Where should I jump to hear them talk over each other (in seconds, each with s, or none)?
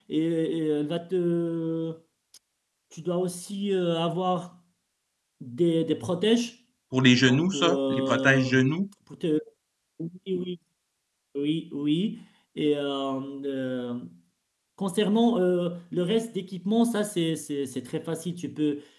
7.2 s